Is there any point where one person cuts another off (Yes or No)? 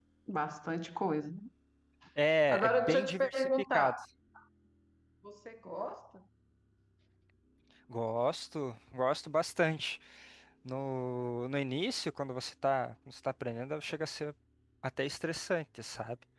Yes